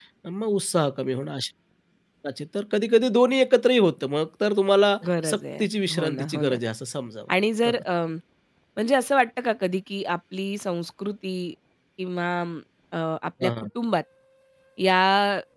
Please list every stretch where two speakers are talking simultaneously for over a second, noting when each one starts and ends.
5.2-6.6

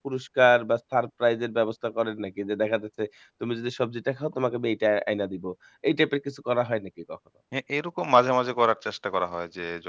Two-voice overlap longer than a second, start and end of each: none

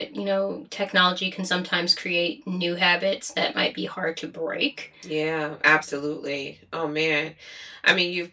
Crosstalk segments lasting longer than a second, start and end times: none

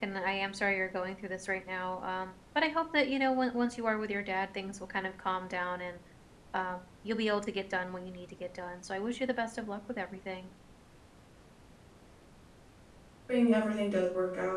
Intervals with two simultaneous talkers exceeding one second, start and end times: none

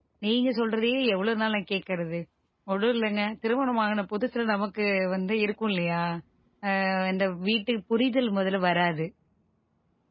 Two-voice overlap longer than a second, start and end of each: none

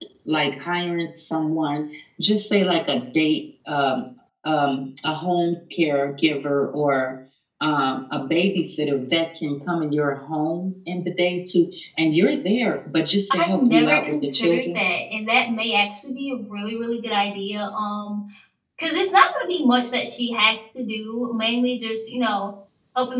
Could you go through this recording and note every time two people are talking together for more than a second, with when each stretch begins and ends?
13.4-14.8

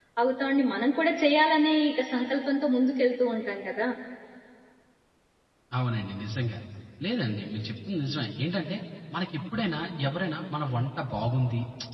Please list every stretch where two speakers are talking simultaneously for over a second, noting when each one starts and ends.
none

